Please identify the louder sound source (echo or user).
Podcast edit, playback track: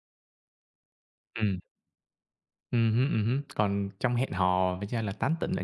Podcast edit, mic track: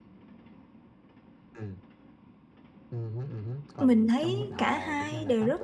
user